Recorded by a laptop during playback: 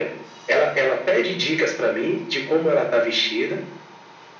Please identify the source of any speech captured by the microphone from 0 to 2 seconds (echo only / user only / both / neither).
echo only